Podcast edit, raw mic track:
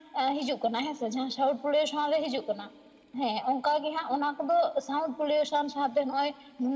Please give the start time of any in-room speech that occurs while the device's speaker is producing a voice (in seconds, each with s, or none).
none